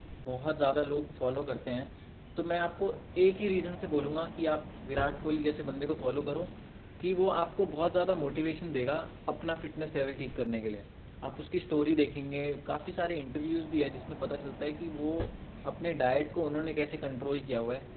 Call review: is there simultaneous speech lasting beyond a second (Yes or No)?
No